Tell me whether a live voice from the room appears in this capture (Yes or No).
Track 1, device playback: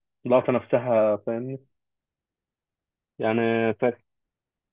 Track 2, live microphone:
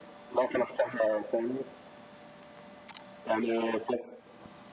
No